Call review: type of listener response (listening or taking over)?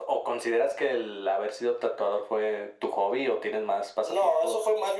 taking over